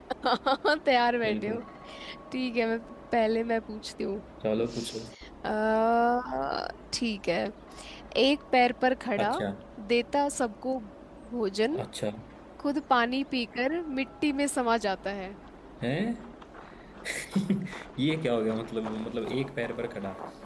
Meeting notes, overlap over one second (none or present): none